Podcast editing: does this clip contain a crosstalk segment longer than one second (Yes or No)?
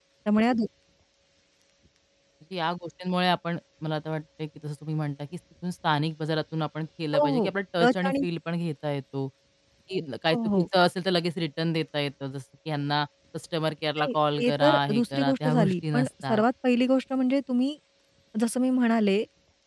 Yes